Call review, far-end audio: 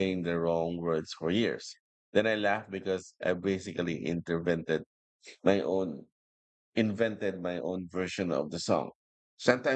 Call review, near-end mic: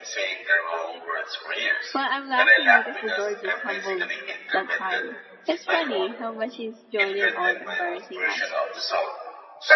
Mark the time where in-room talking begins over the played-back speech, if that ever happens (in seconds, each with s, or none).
1.9 s